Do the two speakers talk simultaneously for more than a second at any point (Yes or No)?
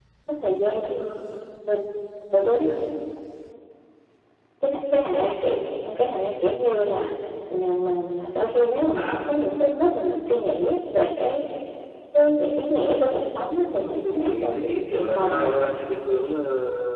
Yes